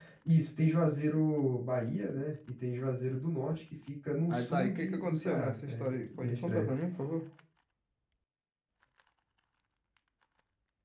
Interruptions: present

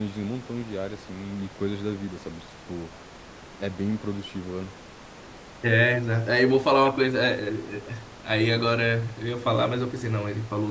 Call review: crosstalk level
none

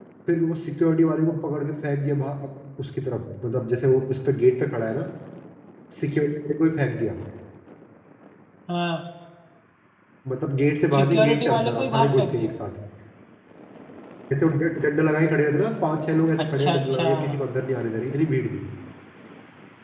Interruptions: present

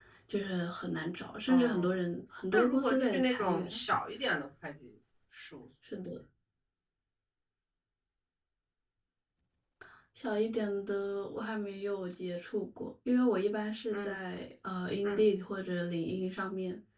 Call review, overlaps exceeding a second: present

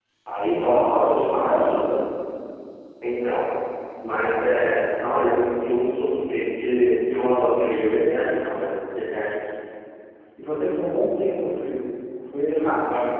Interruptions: present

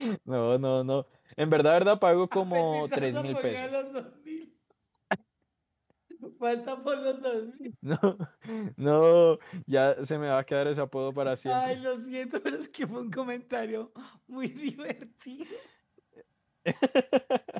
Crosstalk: present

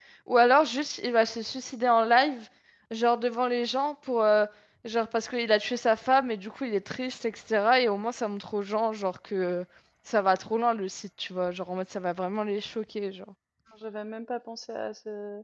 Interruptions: none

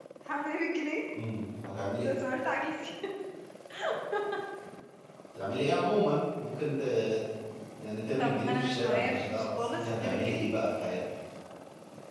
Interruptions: present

